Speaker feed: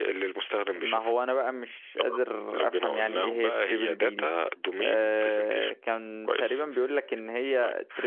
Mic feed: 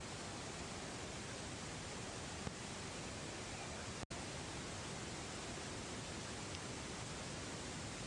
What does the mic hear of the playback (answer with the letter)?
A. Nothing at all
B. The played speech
A